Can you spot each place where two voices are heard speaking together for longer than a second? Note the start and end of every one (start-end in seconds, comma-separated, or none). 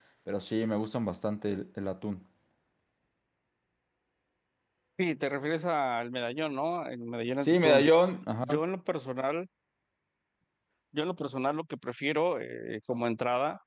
none